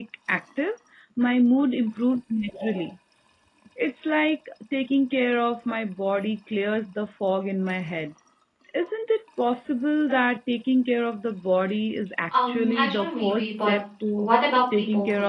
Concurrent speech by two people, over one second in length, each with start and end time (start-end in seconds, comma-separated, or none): 12.4-13.7